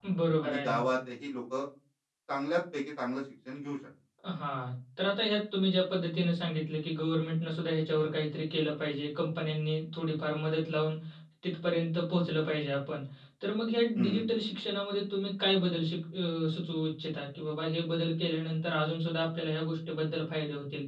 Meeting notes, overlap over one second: none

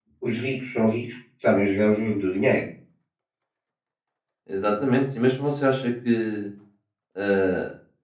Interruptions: none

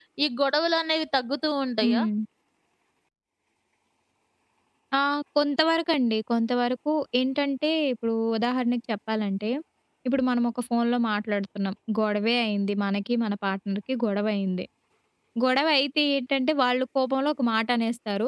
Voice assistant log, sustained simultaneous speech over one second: none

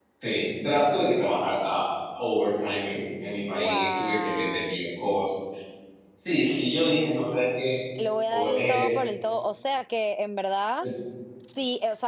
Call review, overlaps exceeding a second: present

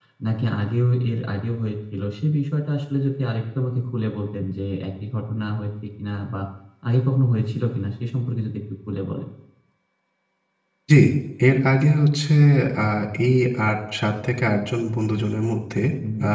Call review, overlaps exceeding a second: none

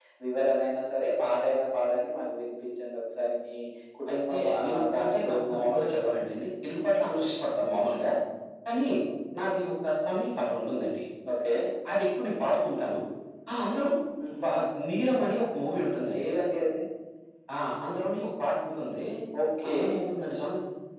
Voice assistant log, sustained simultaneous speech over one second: present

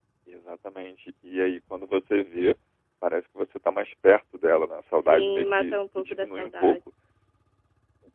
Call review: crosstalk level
present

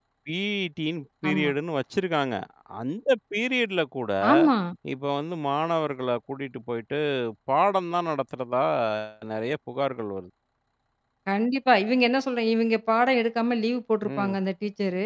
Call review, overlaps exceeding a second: none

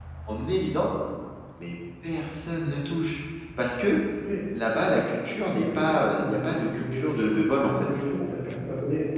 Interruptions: present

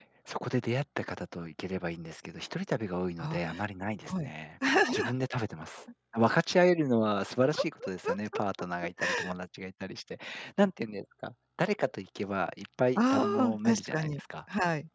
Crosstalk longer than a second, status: present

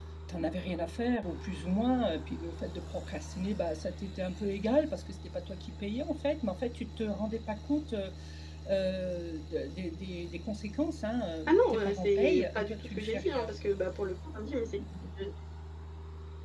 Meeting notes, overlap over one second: present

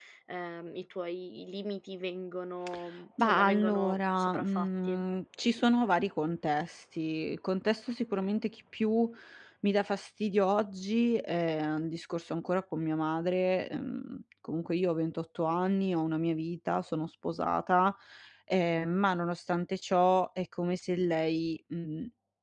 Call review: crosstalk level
present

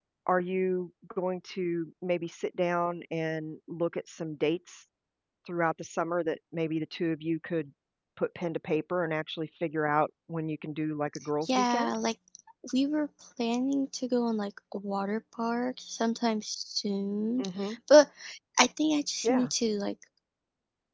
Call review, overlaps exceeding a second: none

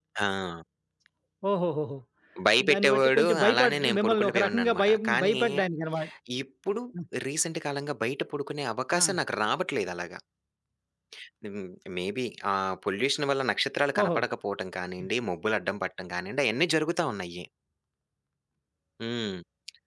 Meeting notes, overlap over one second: present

